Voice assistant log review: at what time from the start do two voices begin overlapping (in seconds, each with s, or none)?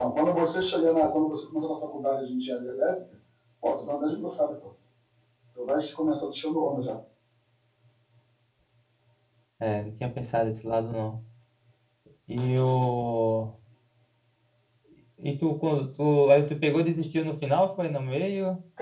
none